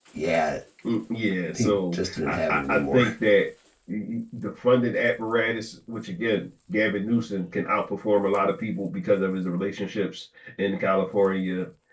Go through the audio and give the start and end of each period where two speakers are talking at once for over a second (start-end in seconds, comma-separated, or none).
1.5-3.0